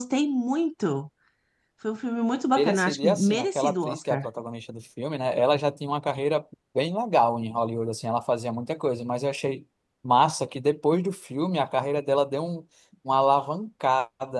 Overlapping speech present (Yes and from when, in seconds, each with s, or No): Yes, from 2.6 s